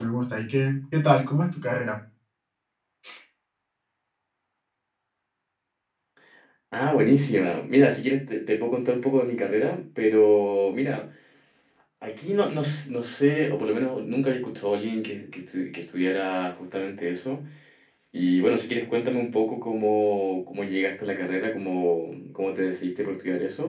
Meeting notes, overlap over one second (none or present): none